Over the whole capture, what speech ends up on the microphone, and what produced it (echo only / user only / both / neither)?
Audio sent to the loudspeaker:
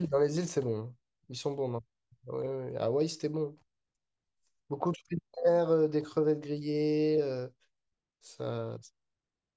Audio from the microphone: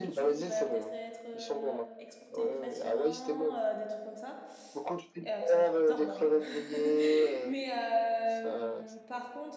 both